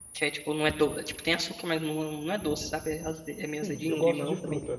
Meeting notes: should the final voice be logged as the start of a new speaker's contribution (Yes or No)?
Yes